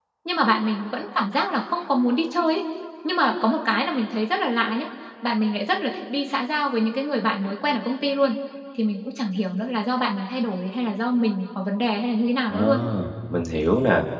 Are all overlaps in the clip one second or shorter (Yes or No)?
Yes